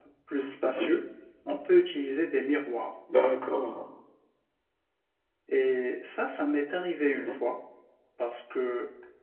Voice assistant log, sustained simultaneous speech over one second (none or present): none